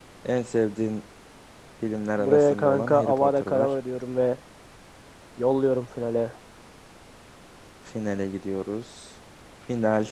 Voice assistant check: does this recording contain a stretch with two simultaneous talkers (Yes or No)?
Yes